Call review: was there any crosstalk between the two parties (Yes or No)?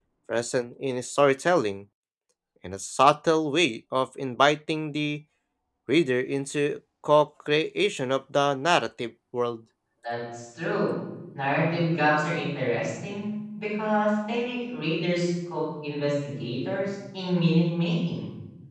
No